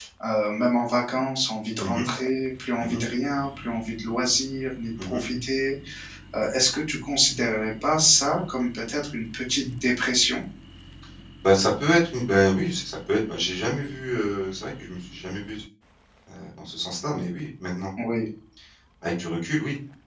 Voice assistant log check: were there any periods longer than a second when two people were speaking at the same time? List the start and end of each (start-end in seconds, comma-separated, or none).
none